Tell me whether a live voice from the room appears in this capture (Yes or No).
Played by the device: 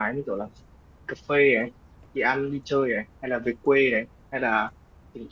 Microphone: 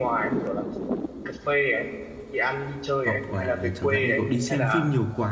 Yes